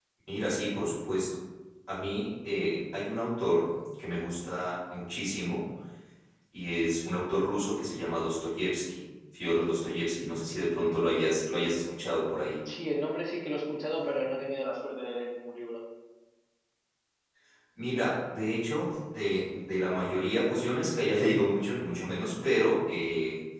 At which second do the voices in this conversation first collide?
none

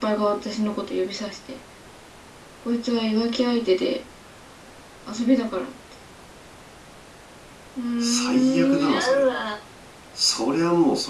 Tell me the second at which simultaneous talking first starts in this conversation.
8.0 s

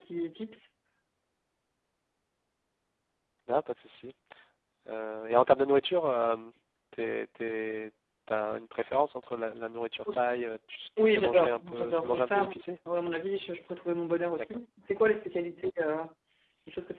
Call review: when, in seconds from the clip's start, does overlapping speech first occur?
11.0 s

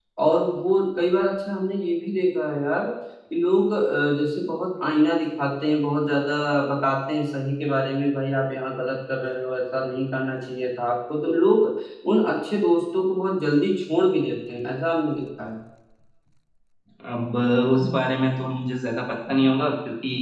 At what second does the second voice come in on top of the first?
none

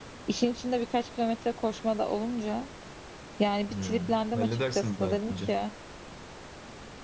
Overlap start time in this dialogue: 3.7 s

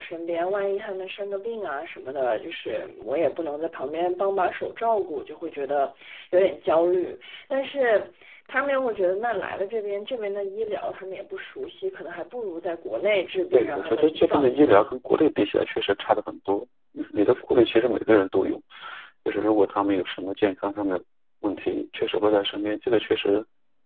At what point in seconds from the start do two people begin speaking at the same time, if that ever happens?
13.5 s

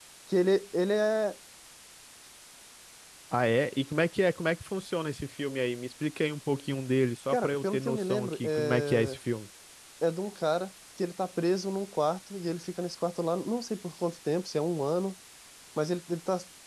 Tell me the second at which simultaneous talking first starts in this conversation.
7.3 s

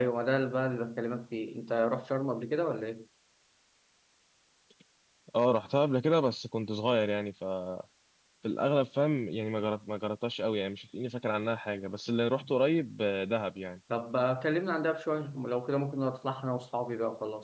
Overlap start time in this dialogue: none

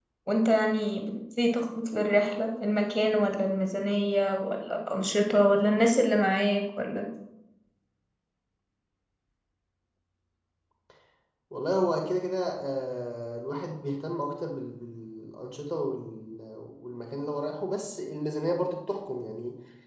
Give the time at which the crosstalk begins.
none

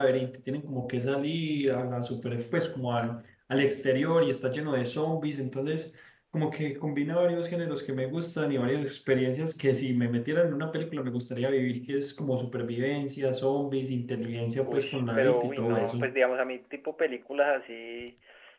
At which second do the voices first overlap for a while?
14.6 s

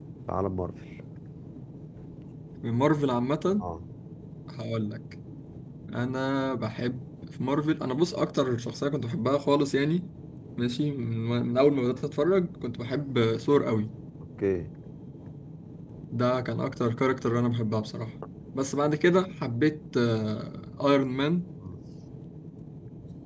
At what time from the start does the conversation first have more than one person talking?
none

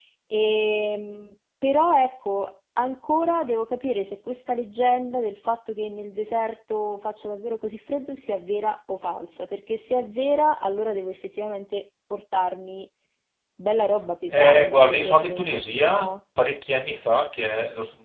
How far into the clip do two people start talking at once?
14.3 s

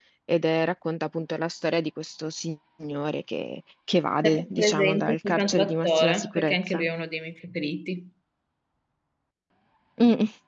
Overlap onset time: 4.2 s

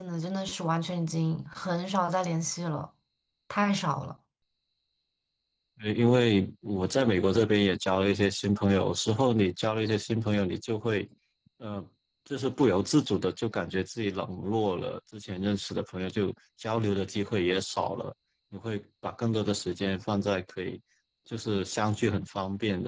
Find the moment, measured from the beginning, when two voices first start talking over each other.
none

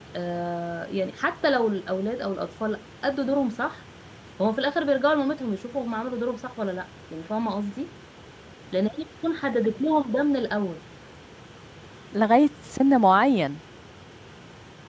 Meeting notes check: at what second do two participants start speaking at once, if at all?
none

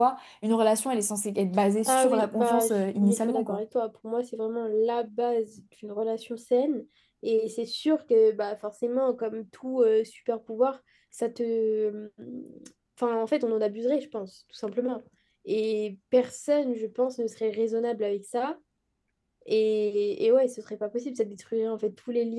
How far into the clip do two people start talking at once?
1.9 s

